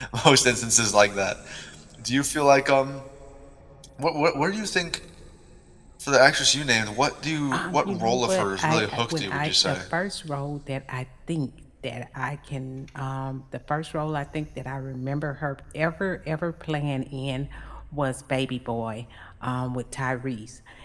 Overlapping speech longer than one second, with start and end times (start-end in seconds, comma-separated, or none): 7.5-9.8